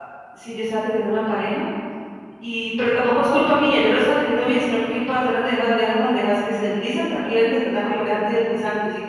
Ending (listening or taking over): listening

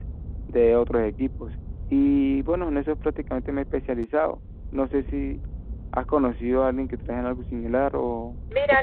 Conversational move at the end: taking over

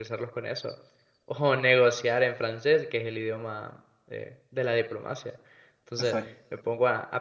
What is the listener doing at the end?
listening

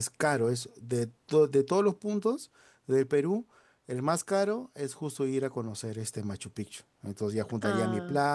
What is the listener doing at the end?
listening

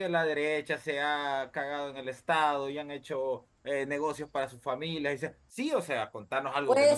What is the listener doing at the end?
taking over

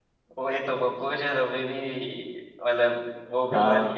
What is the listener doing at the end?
taking over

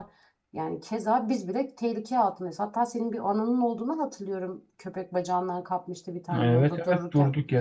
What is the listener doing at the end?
taking over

